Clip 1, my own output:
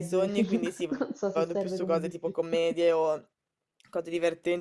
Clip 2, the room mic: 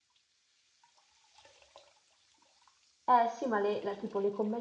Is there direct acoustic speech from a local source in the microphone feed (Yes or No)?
Yes